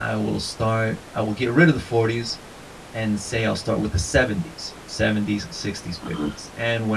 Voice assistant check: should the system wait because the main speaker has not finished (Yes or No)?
Yes